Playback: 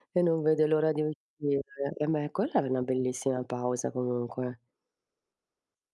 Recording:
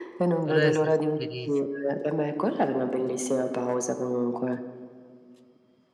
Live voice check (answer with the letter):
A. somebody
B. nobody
A